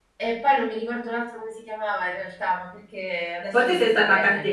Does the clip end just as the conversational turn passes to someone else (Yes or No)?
Yes